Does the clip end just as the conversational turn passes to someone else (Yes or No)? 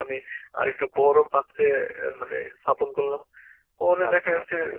Yes